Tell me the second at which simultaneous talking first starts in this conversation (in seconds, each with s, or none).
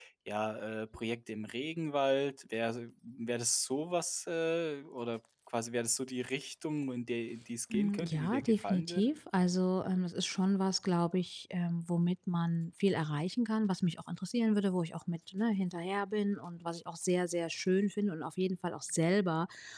7.7 s